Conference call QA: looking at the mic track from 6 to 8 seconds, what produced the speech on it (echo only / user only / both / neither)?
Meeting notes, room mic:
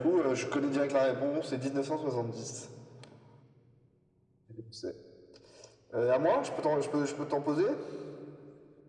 echo only